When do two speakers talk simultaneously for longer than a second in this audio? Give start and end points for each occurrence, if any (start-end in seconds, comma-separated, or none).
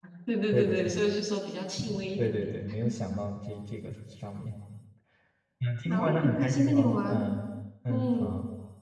5.9-7.3